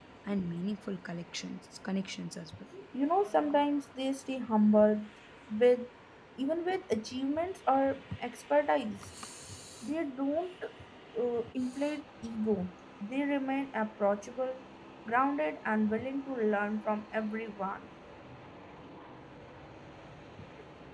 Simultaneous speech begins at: none

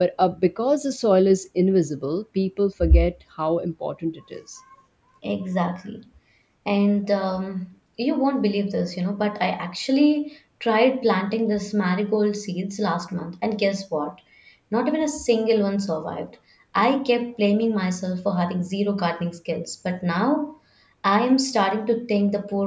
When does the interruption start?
none

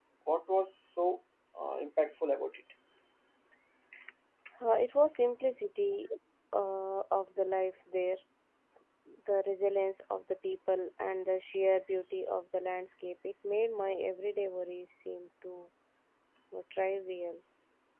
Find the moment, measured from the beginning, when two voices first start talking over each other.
none

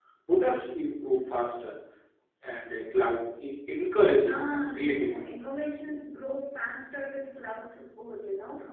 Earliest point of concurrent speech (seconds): 4.1 s

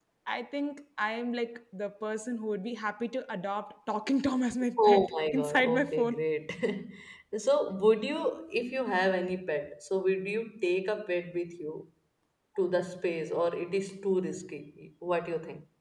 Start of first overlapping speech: 4.8 s

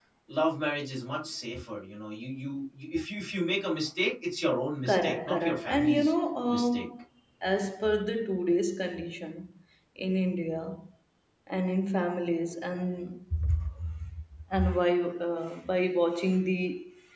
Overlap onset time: 4.8 s

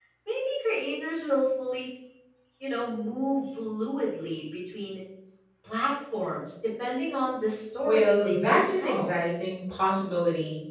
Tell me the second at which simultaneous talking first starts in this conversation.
7.8 s

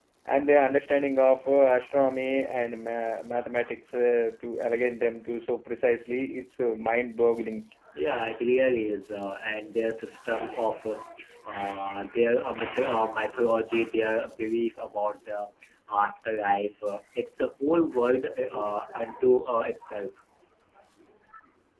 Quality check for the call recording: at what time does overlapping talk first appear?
none

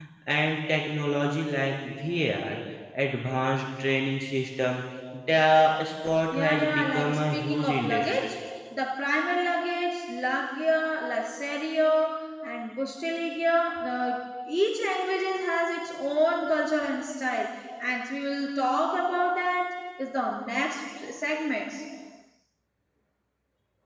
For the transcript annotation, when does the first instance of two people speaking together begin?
6.3 s

